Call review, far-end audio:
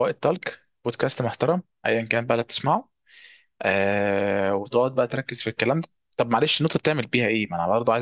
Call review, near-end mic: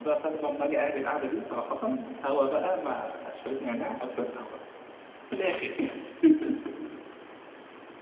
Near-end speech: present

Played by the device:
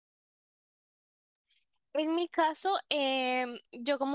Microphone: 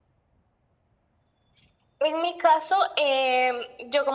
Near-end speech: none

